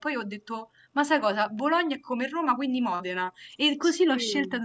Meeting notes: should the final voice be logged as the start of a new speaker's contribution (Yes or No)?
No